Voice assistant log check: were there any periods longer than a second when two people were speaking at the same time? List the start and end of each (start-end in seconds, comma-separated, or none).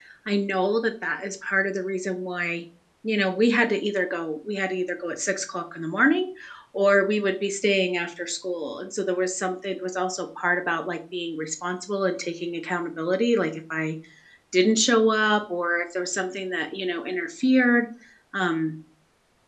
none